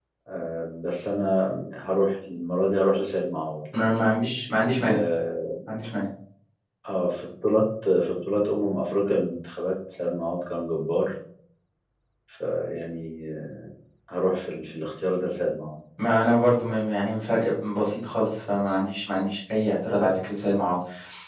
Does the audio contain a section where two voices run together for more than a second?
No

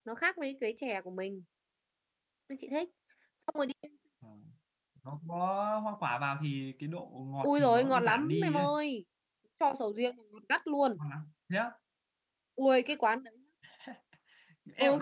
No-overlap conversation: No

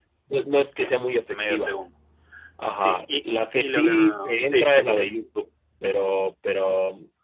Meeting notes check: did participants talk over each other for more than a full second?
Yes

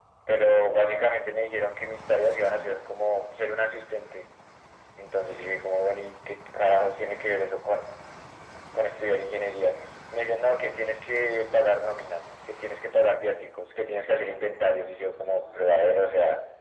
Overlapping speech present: Yes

